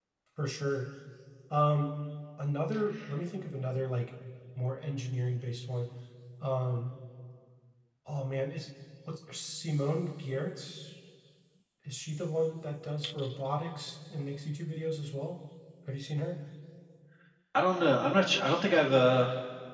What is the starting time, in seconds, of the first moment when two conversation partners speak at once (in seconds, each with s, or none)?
none